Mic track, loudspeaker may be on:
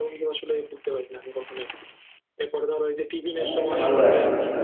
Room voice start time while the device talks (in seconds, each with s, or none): 3.3 s